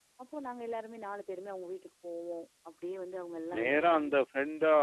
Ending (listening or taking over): taking over